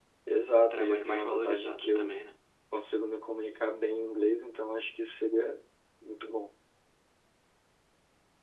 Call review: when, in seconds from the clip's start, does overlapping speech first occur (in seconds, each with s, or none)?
0.6 s